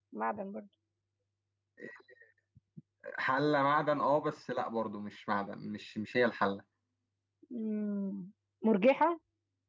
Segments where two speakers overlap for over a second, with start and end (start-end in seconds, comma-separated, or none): none